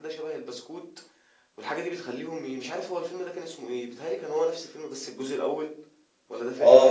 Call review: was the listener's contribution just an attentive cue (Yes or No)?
No